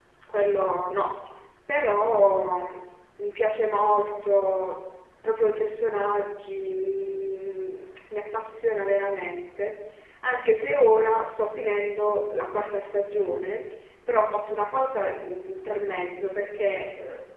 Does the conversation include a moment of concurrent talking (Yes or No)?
No